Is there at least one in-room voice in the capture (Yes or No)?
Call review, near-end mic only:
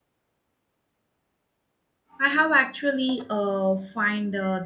Yes